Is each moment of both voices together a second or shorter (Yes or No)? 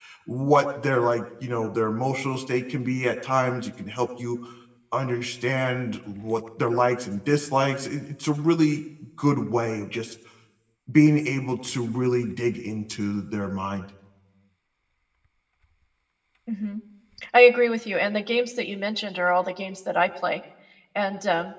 Yes